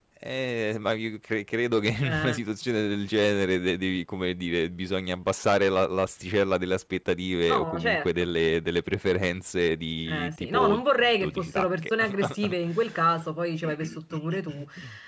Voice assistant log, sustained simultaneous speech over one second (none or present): present